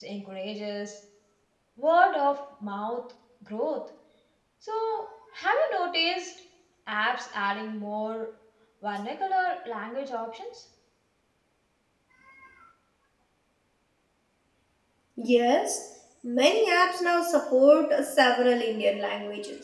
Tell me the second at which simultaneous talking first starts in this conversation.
none

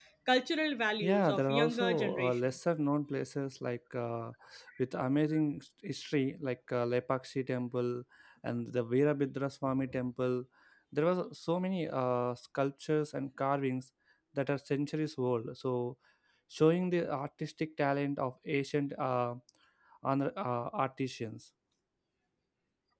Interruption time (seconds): 1 s

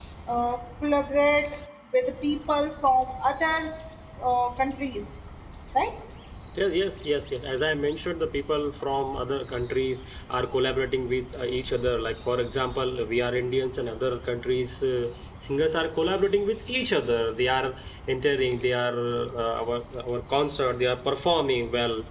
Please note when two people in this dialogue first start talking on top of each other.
none

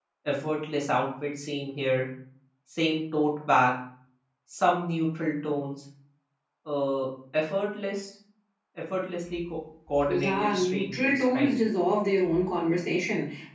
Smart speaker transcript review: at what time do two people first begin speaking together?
10 s

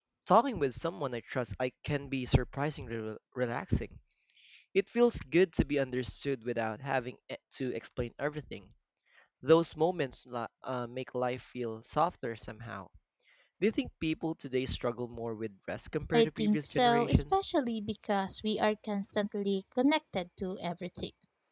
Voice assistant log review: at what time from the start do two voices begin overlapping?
16 s

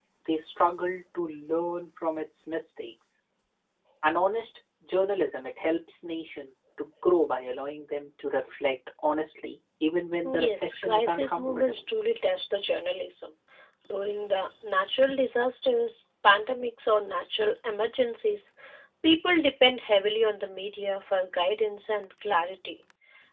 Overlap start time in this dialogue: 10 s

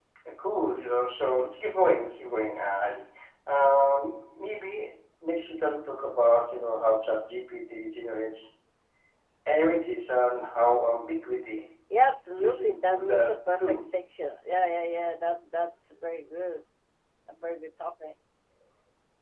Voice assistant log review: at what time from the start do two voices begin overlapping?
12 s

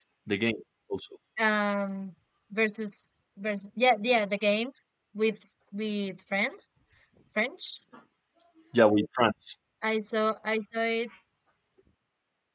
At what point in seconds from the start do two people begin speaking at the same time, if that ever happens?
none

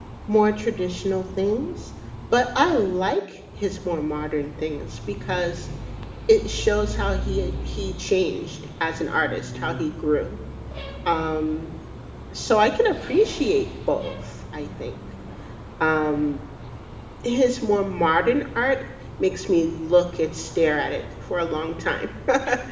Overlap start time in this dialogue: none

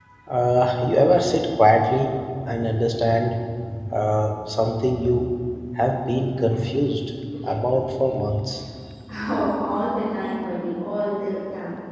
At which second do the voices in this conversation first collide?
none

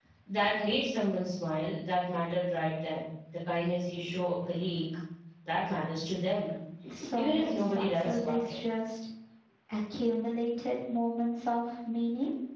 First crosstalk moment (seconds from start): 7 s

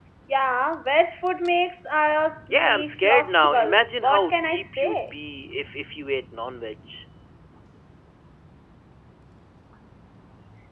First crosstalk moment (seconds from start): 3 s

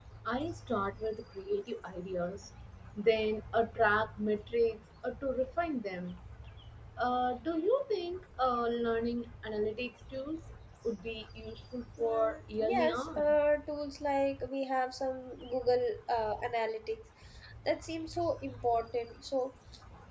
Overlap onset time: 12 s

